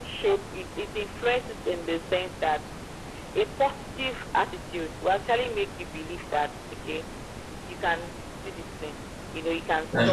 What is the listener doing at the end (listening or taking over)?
listening